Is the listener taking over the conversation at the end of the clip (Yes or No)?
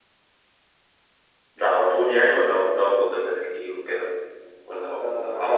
Yes